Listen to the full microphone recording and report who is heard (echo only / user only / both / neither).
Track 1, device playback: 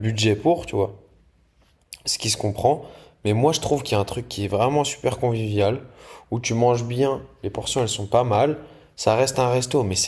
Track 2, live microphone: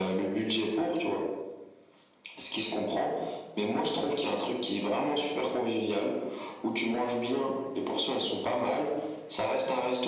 echo only